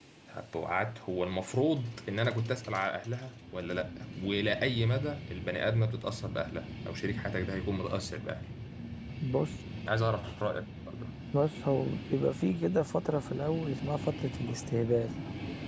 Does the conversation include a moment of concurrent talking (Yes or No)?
No